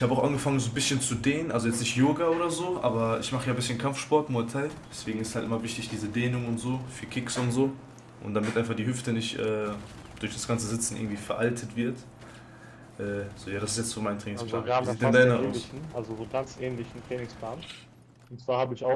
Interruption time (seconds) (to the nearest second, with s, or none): 14 s